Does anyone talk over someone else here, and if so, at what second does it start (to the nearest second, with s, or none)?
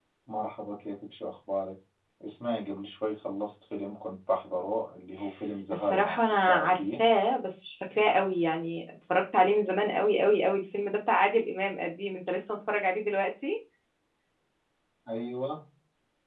6 s